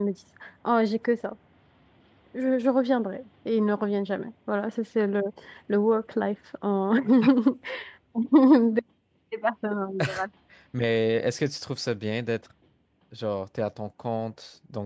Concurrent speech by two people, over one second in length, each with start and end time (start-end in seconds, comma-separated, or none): none